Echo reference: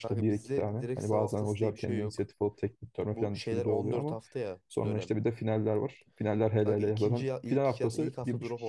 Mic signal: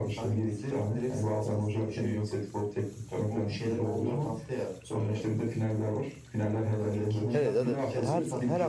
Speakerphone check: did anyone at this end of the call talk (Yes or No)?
Yes